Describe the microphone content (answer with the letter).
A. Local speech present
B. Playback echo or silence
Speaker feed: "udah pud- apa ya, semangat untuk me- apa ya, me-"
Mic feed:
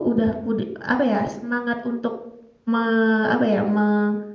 B